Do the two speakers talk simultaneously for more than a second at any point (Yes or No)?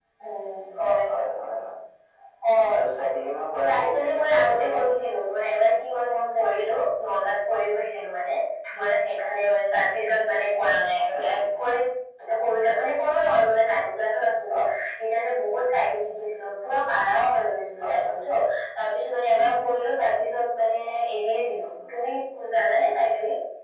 Yes